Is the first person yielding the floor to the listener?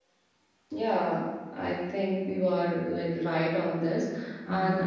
No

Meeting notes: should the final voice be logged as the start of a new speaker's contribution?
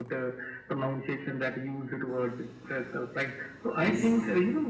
No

